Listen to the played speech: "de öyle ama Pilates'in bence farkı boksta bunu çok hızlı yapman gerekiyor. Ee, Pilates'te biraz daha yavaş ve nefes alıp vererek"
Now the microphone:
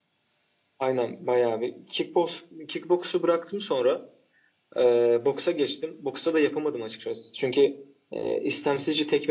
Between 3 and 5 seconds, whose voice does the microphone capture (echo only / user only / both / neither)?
user only